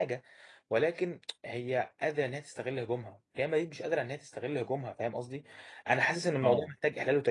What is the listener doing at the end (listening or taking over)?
listening